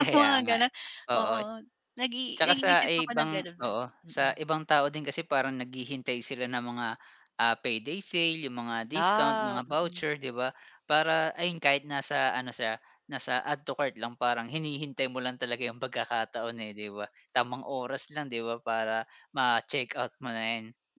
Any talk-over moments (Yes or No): Yes